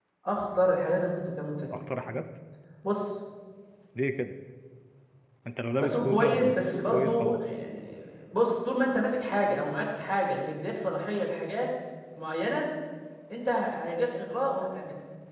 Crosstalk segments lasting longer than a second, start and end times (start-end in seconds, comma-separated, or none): 5.8-7.4